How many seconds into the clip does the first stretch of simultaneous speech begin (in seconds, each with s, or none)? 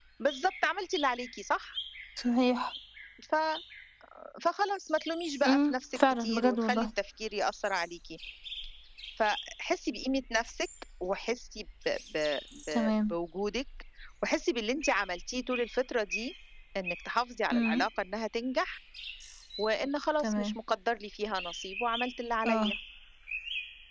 5.5 s